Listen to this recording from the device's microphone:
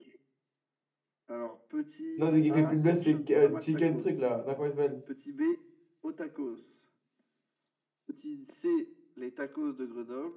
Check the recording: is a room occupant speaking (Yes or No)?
Yes